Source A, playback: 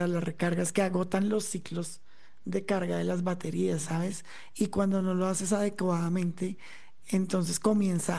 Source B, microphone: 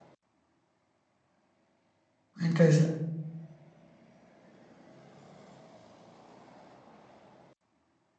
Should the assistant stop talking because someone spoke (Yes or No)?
Yes